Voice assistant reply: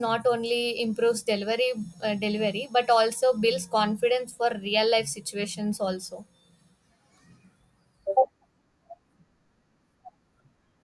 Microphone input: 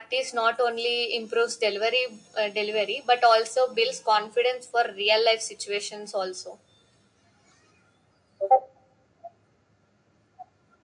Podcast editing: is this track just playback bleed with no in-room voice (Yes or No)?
Yes